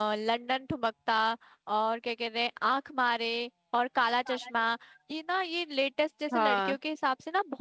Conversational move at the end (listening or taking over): listening